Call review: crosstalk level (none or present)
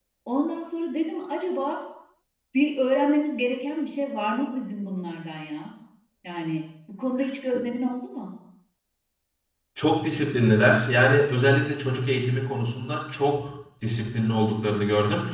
none